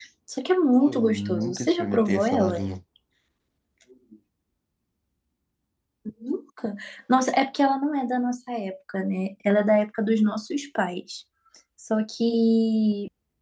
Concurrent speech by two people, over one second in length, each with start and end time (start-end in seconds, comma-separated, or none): 0.8-2.6